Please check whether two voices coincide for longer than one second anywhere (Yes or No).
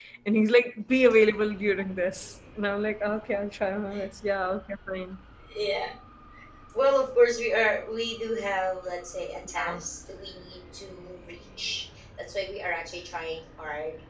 No